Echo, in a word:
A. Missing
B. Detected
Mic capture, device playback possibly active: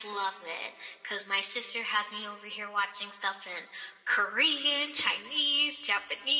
B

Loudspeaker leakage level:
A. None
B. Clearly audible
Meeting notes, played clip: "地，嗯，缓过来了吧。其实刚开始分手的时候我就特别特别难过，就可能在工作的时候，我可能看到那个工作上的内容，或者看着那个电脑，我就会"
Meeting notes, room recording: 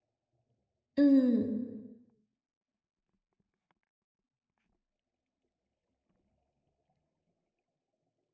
A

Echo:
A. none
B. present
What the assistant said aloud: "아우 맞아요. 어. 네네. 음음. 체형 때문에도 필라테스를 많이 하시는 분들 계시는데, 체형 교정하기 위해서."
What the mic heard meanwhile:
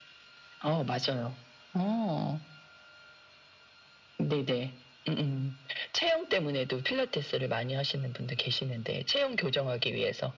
B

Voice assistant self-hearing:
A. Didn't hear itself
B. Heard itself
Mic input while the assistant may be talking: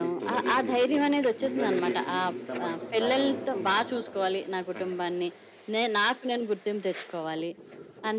B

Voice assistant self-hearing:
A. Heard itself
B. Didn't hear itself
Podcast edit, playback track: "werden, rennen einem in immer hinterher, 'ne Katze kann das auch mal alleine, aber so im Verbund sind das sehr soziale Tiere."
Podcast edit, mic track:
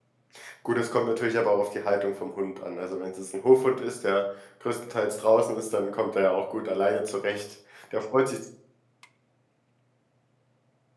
B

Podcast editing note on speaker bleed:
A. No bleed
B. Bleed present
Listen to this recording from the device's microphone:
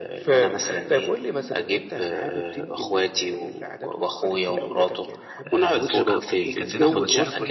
B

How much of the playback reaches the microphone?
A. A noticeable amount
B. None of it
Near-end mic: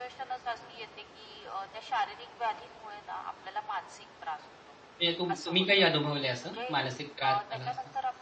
A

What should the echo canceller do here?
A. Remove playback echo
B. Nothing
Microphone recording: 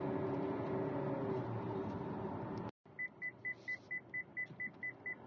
B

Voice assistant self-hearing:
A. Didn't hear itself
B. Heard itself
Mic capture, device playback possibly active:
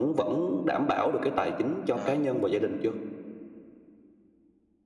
B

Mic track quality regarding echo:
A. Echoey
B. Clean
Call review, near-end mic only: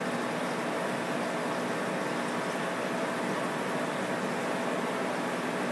B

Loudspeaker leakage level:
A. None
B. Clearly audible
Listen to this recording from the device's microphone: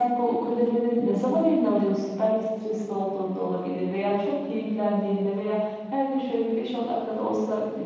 B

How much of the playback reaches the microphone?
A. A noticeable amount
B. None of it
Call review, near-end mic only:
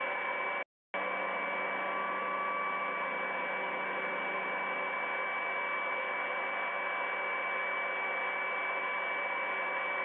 B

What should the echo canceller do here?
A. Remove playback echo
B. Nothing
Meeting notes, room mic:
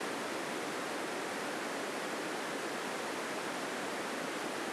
B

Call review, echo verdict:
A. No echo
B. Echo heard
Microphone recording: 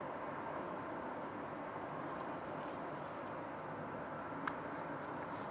A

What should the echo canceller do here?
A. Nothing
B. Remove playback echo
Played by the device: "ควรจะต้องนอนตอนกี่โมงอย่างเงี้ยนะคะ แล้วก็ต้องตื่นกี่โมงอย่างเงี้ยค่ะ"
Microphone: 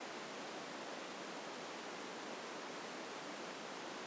A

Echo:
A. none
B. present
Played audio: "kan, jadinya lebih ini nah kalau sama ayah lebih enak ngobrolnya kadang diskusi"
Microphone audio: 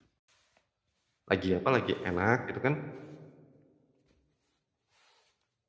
A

